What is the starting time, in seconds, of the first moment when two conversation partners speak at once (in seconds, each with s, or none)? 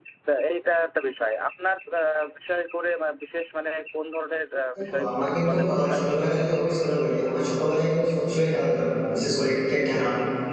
4.8 s